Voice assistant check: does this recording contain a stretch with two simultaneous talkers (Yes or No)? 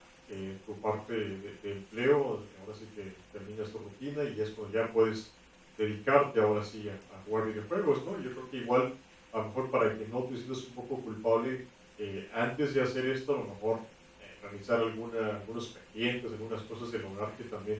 No